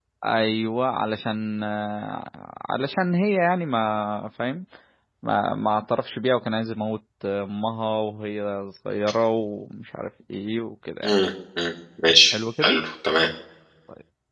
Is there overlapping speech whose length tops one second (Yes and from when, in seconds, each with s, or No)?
No